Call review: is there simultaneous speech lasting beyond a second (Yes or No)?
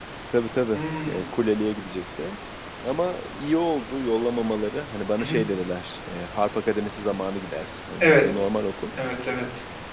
No